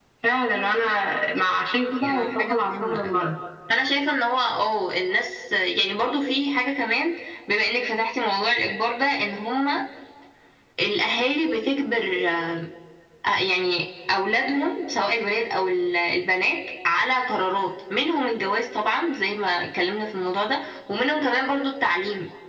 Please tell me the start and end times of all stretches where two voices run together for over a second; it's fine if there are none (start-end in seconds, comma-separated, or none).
2.0-3.3